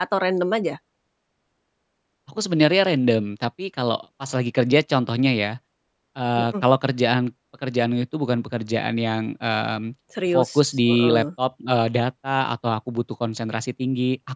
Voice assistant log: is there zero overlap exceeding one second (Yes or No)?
Yes